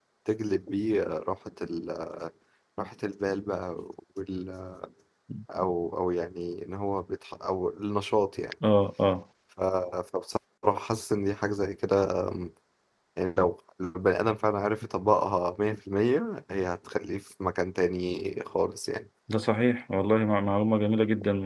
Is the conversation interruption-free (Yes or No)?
Yes